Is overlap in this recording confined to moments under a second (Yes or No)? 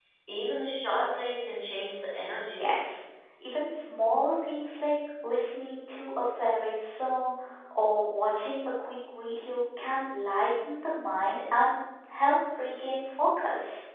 Yes